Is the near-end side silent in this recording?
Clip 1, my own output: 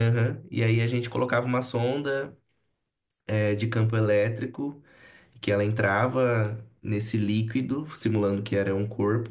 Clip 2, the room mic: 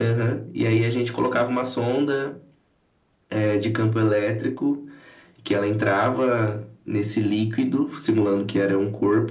Yes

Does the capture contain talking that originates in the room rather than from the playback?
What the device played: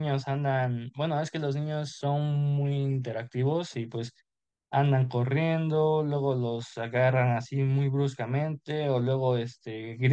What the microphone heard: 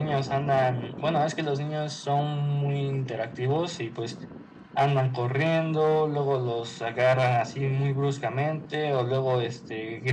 No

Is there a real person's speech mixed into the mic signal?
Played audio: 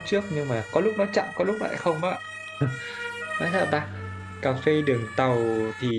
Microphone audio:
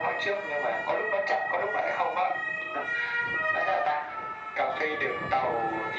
No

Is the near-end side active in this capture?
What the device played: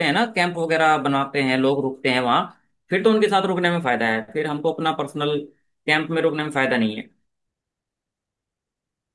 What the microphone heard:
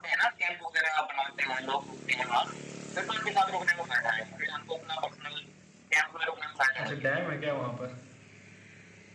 Yes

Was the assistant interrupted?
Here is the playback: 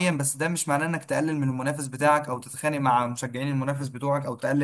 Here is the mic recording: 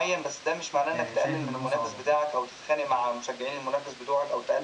Yes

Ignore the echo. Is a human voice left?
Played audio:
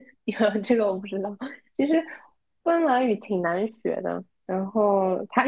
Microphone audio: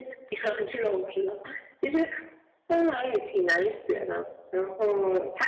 No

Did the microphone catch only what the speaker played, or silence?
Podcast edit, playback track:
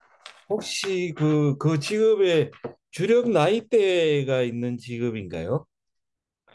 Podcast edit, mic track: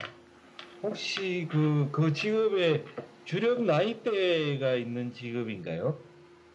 Yes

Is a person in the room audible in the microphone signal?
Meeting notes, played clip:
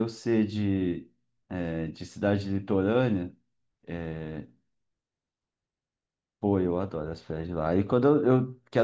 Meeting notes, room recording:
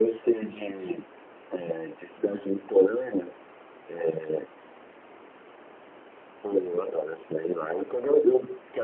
No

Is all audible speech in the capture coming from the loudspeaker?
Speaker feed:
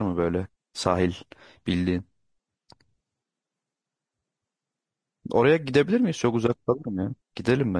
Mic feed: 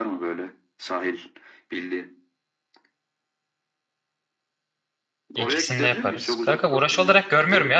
No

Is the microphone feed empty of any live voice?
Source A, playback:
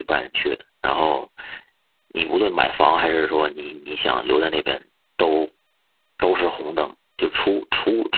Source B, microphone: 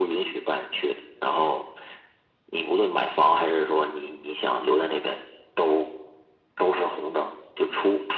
Yes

